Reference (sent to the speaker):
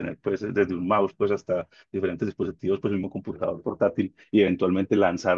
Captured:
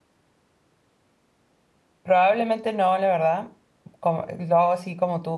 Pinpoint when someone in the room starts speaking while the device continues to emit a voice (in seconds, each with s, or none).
2.0 s